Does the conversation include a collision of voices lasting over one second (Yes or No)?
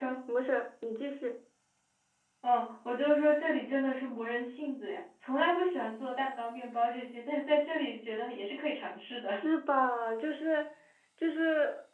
No